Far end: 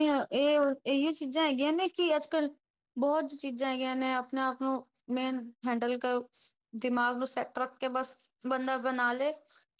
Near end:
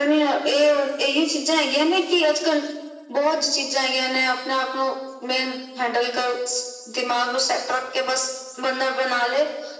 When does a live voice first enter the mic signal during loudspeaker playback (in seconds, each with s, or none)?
none